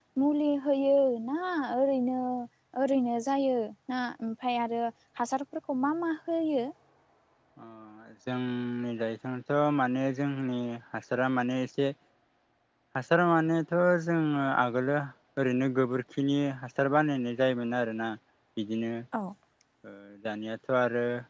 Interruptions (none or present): none